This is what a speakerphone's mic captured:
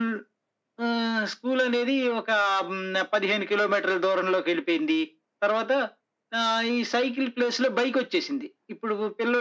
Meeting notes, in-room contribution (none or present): none